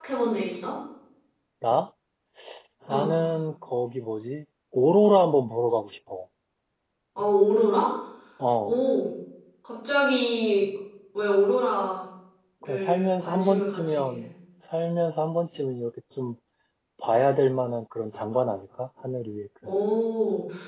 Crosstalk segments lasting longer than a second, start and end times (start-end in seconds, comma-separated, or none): 12.6-14.2